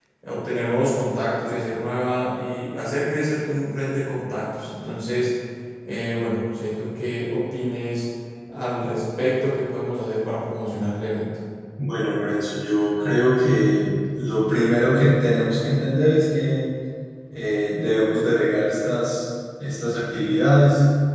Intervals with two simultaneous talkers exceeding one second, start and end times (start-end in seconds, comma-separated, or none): none